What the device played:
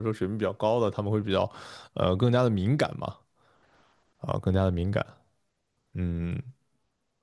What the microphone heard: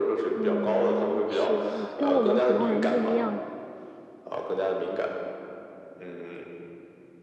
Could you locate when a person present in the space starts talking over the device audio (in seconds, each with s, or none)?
0.3 s